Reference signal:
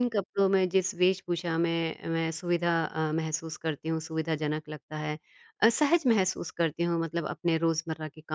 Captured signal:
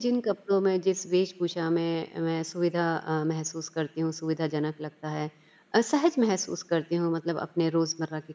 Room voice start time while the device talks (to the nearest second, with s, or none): none